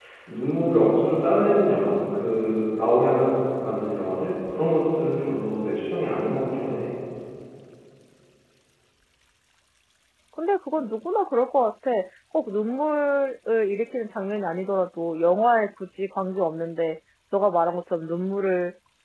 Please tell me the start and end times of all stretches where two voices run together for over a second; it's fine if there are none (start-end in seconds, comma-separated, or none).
none